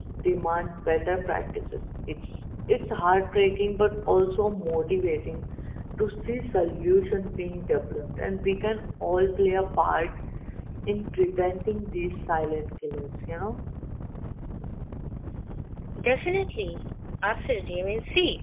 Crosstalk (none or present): none